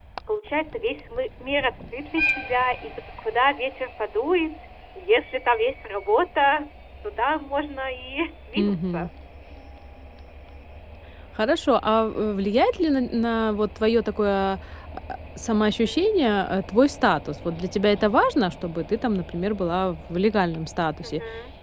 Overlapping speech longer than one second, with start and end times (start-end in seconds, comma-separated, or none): none